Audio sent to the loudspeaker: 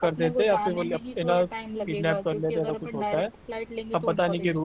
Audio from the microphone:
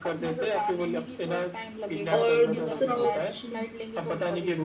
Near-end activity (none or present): present